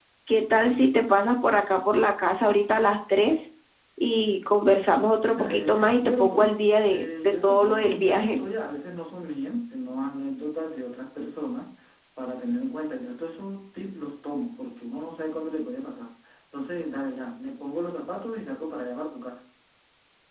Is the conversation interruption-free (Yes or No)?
No